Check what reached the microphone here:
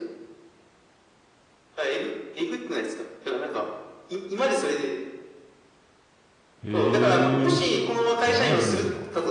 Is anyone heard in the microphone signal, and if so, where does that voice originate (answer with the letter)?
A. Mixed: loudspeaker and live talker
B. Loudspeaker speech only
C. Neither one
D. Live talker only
A